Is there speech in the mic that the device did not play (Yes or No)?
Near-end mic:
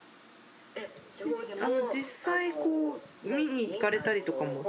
Yes